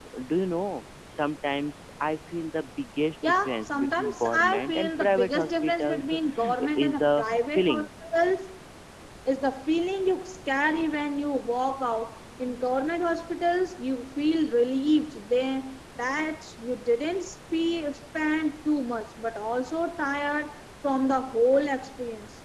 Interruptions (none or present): present